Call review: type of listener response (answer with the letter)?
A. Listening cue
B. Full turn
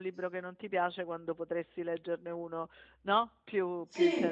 B